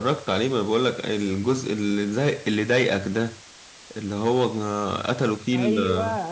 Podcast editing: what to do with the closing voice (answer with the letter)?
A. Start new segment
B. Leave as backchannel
A